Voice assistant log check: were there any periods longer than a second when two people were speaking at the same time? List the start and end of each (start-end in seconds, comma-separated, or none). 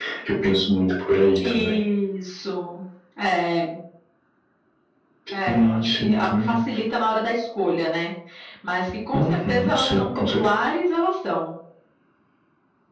5.5-6.8, 9.1-10.6